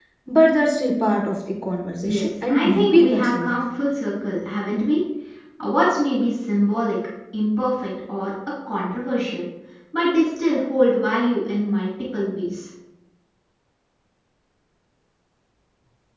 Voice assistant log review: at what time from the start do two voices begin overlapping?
2.0 s

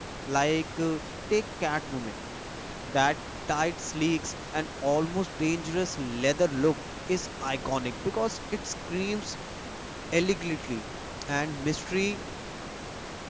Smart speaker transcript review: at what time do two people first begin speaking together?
none

